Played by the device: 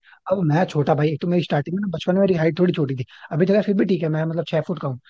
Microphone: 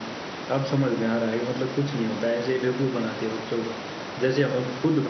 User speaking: Yes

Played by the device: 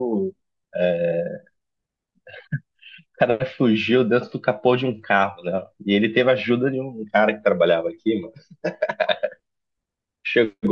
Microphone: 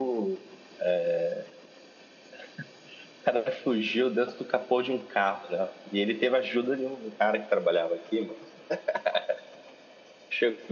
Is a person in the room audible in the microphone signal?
No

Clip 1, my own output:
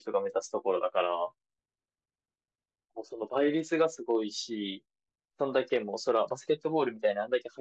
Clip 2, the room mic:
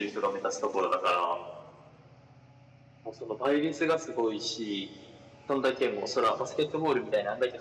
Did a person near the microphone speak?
No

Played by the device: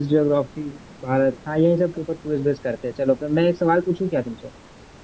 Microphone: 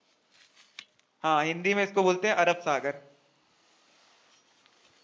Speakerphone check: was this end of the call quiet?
No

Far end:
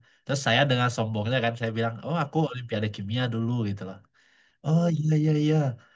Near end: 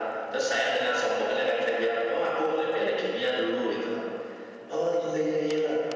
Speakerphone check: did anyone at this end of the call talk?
Yes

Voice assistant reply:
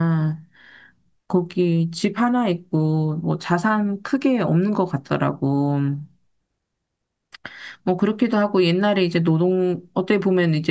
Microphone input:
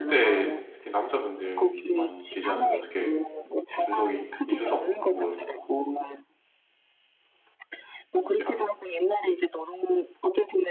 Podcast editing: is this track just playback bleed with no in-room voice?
No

